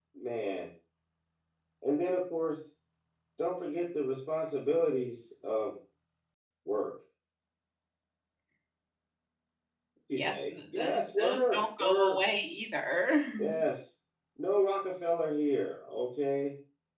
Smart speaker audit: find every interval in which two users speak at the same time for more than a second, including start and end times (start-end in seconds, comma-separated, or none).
10.2-12.2